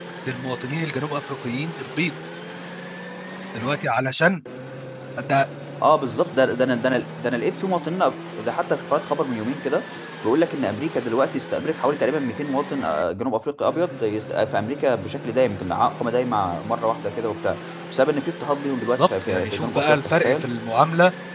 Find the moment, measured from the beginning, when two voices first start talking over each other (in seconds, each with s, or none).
18.8 s